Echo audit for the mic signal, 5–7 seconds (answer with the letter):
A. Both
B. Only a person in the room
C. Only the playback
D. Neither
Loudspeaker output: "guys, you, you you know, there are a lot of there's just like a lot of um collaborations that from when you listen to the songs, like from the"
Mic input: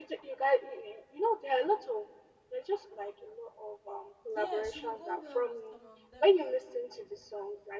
A